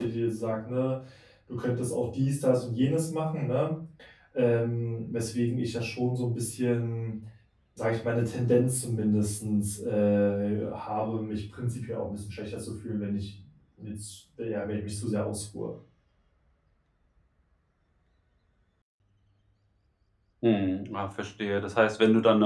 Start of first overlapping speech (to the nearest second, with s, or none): none